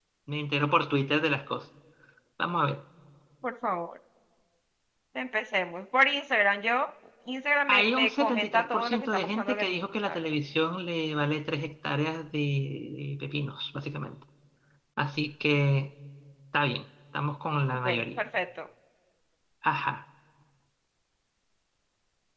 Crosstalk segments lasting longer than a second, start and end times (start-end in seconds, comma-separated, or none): 7.7-10.3